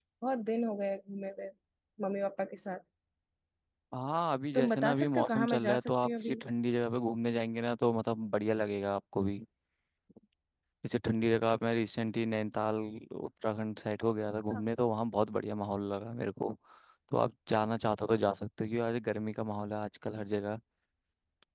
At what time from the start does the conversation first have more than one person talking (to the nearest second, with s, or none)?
5 s